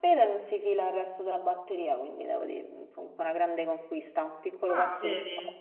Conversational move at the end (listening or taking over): taking over